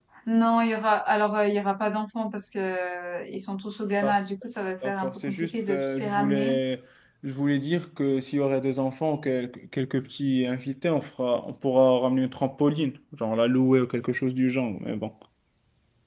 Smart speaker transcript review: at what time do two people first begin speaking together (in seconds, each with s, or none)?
4.8 s